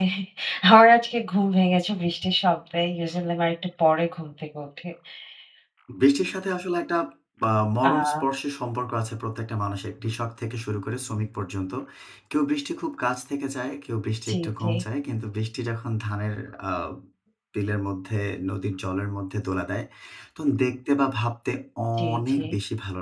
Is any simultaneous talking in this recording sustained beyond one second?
No

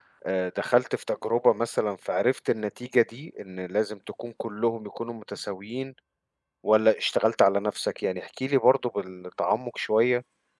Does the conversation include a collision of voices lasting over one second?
No

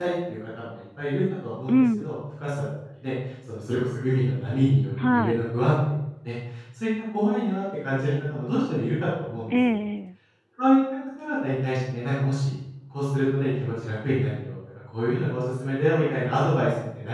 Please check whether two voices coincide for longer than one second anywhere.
No

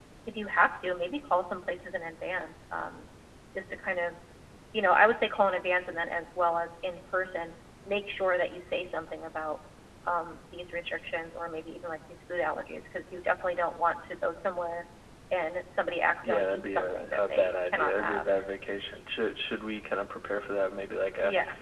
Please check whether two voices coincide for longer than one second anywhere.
Yes, from 16.2 s

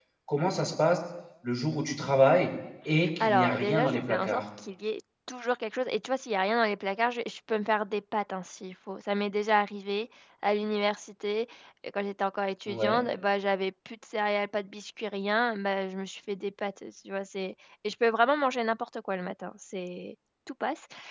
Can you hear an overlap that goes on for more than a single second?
Yes, from 3.2 s

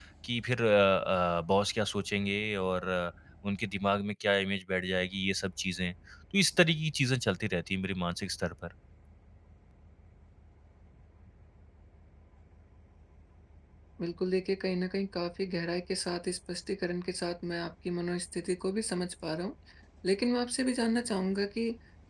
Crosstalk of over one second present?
No

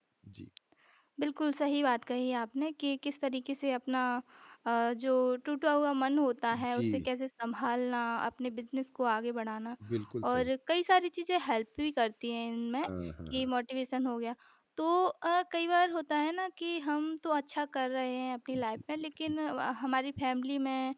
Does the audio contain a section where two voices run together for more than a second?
No

